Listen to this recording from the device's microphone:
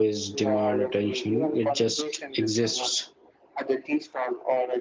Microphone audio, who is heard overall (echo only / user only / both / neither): both